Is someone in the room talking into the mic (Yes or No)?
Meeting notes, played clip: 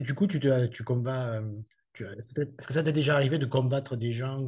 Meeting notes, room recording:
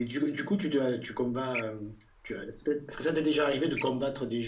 No